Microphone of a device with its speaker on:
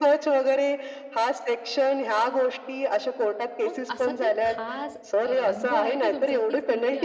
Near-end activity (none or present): present